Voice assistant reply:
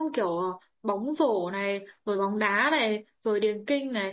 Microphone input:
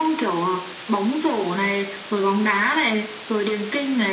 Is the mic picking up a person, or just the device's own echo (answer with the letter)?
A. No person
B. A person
A